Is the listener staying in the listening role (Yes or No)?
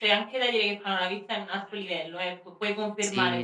No